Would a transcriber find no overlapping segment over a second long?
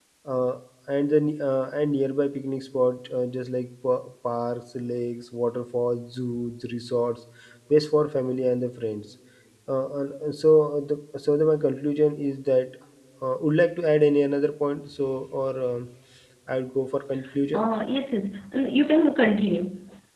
Yes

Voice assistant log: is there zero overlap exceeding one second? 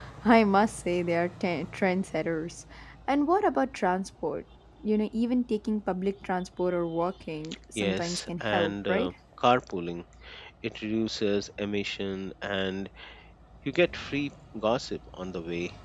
No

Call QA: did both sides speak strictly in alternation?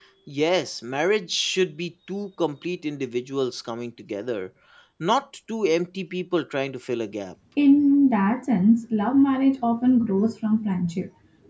Yes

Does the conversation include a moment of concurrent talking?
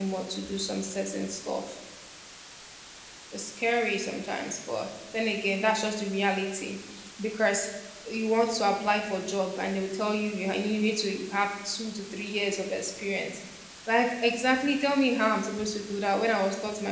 No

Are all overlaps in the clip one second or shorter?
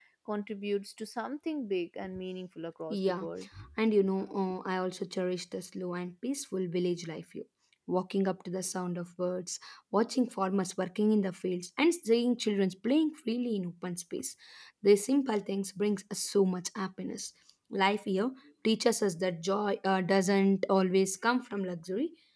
Yes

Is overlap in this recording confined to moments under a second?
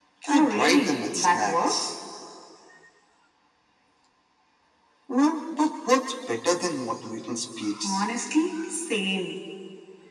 No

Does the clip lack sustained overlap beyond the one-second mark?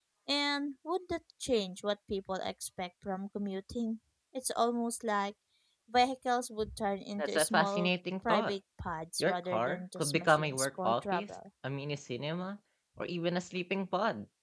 No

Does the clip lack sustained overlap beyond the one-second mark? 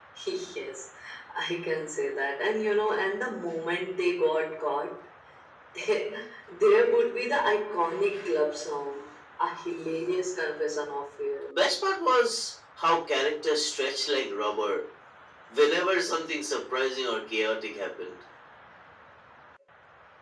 Yes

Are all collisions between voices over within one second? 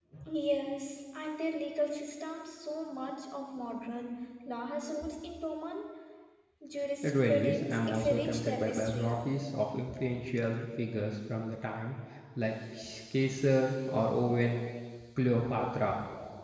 No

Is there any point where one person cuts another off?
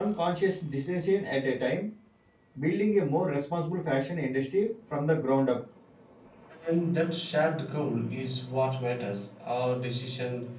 No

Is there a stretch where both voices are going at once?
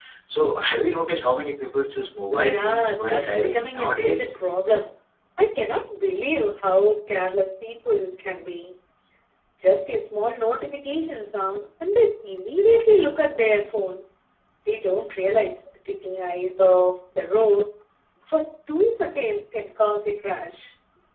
Yes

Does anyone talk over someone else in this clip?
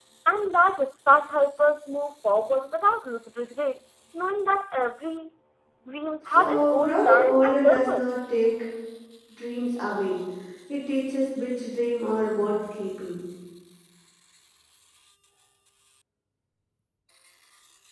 Yes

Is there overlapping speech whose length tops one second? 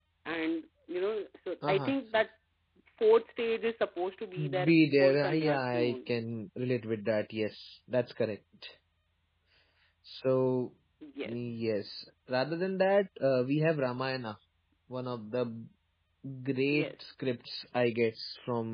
Yes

